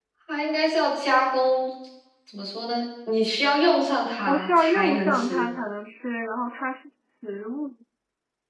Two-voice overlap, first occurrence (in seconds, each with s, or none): 4.3 s